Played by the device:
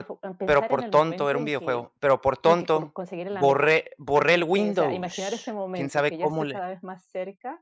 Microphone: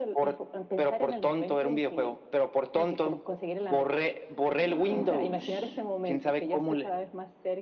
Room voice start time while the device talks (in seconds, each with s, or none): 4.6 s